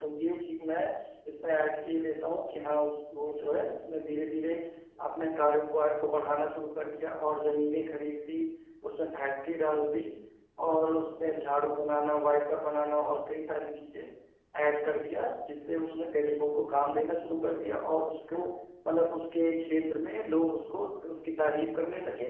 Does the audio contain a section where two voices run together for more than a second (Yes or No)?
No